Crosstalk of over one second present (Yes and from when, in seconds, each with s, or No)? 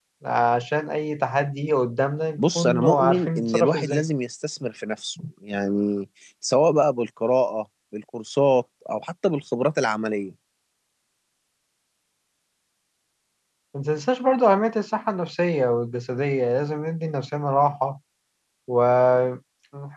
Yes, from 2.4 s